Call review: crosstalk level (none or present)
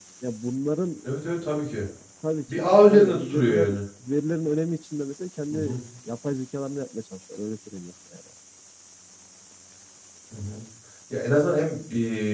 present